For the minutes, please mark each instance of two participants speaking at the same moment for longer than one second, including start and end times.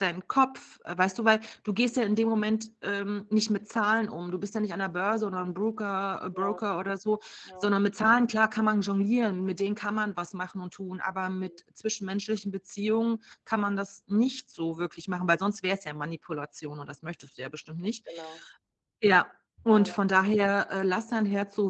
none

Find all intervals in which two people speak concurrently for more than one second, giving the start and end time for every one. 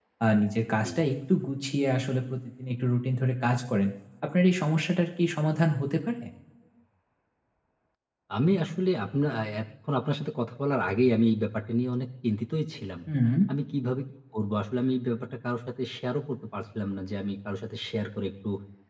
none

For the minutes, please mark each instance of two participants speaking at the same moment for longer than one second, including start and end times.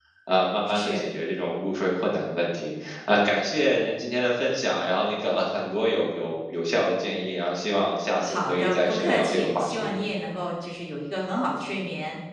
8.2-9.9

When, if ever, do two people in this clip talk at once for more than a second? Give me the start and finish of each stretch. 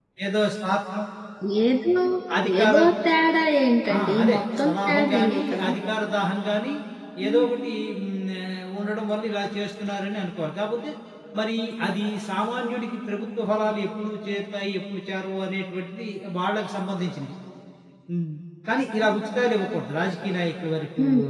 4.0-5.7

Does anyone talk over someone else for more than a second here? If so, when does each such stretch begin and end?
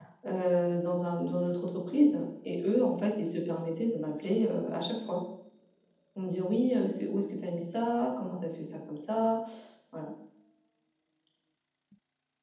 none

